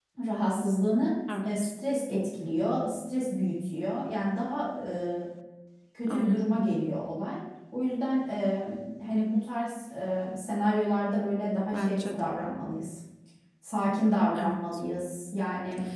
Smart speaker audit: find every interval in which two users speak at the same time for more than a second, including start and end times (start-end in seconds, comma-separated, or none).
none